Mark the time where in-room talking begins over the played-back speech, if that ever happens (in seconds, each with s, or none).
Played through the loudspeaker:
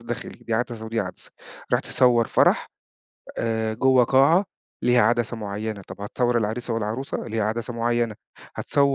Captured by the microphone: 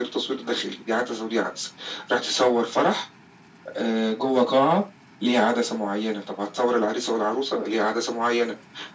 none